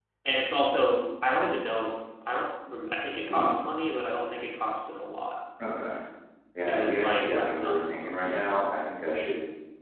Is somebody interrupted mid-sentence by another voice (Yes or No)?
Yes